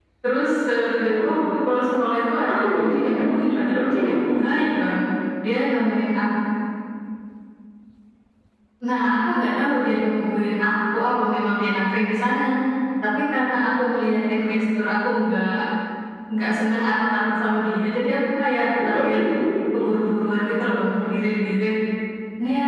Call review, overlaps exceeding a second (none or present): present